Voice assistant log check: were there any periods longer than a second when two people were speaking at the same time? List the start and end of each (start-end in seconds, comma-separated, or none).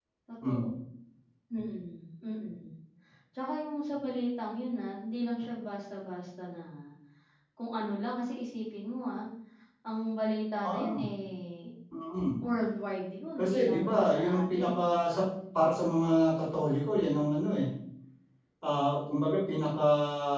13.4-15.3